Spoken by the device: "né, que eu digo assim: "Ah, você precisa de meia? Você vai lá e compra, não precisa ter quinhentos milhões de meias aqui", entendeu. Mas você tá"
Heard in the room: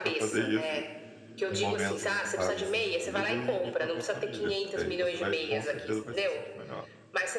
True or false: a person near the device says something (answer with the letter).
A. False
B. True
B